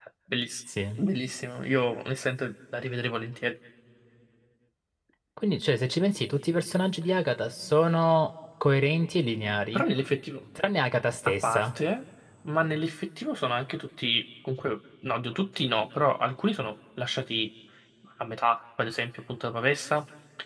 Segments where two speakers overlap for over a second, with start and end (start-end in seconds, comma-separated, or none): none